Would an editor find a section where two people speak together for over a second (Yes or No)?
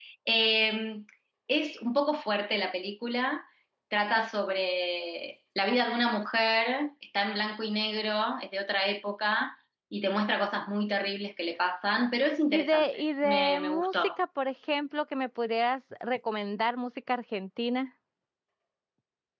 Yes